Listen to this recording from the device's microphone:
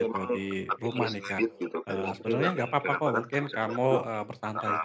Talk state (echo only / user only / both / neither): both